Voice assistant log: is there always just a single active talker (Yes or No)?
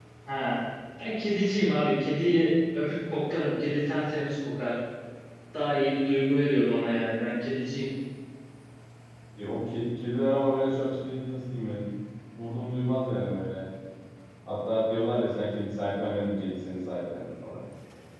Yes